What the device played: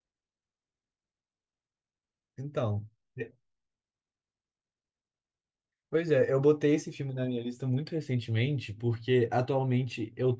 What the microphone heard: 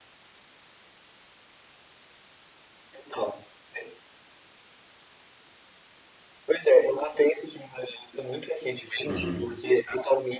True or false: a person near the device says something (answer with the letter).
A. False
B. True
B